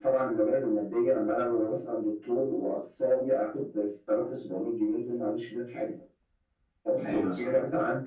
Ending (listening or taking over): listening